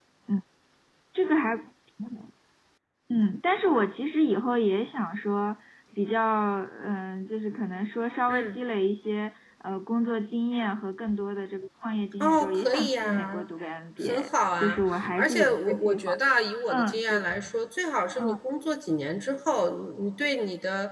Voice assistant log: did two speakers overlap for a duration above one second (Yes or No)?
Yes